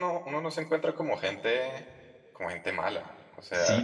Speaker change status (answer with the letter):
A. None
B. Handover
B